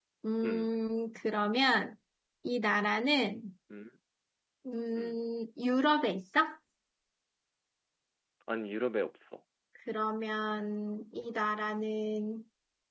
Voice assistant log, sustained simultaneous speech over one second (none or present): none